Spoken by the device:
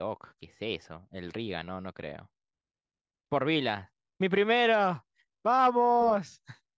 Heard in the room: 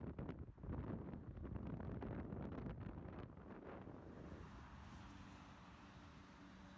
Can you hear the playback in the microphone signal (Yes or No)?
No